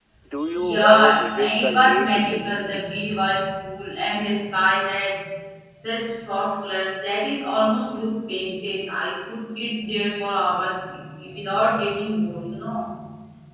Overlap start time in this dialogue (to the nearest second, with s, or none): 1 s